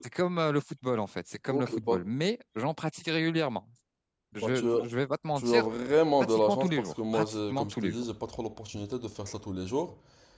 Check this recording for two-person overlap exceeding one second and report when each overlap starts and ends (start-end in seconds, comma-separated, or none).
6.2-8.0